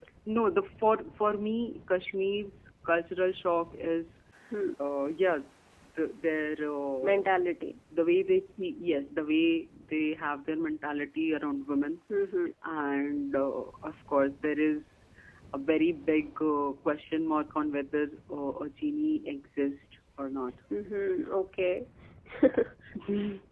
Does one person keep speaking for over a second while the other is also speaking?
No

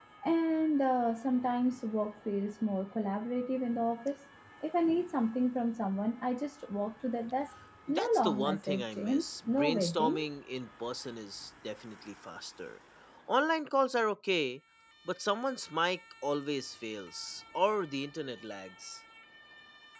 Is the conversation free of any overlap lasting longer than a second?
No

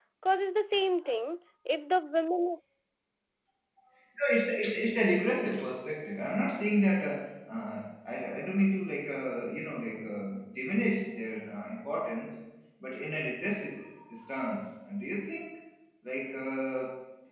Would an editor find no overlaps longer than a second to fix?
Yes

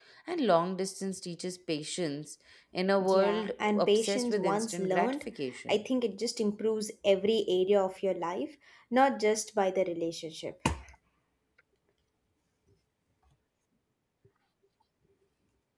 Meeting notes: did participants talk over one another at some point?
Yes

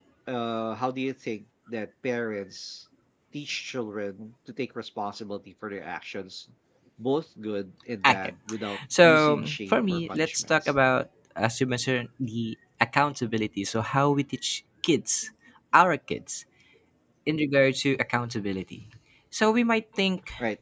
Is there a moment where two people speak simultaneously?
Yes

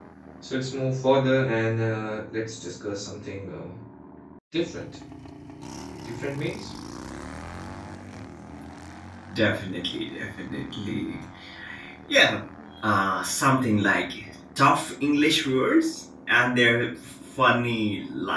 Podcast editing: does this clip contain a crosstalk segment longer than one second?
No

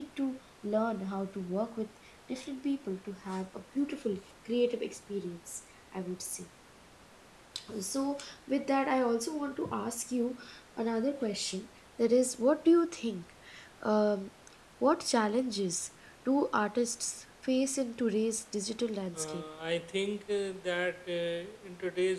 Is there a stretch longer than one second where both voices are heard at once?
No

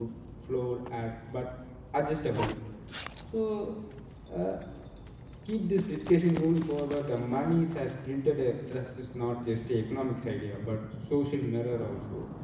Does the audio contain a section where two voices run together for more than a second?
No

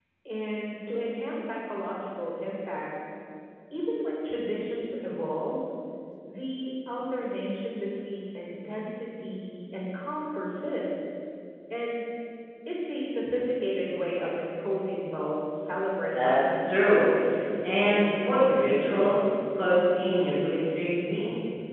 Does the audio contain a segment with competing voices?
Yes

